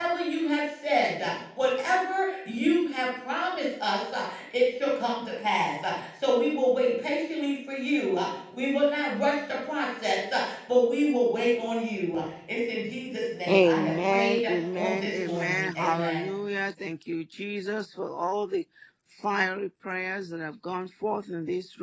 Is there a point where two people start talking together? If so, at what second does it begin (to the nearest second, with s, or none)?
13 s